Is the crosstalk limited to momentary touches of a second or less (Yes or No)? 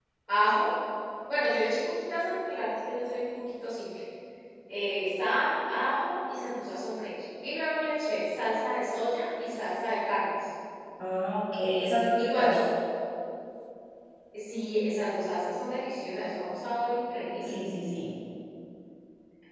Yes